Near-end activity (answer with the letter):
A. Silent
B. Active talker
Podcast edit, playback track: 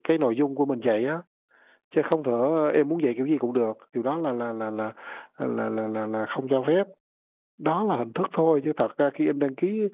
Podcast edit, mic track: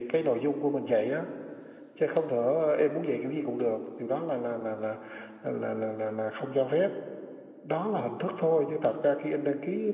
A